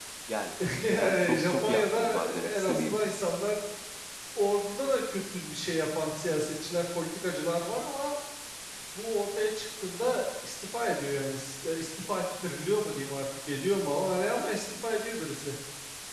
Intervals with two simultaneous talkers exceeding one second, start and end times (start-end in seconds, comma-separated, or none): 0.9-3.0